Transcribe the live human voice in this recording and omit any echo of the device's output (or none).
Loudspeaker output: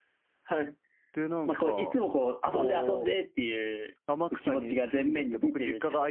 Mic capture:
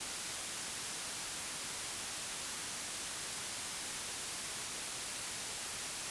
none